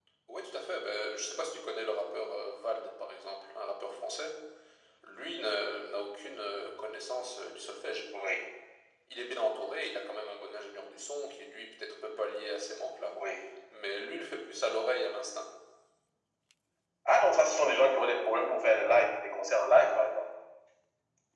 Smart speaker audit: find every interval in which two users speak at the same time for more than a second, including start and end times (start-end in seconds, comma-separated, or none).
none